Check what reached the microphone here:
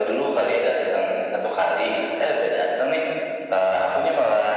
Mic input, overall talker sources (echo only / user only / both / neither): echo only